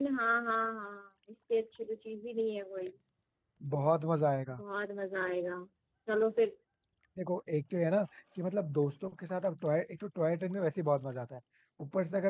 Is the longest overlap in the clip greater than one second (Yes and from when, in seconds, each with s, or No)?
No